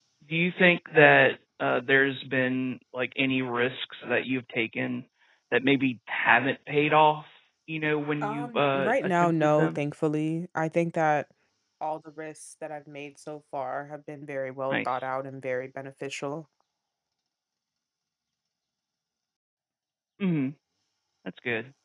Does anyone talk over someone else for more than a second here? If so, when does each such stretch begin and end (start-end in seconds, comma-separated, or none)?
8.2-9.8